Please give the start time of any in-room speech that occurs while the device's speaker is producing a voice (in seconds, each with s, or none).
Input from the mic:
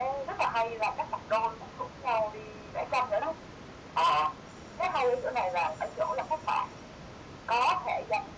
none